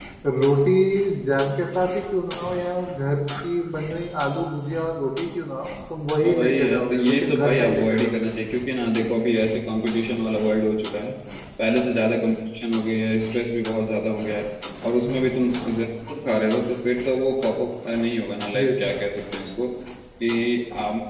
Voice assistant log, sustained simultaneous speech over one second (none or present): present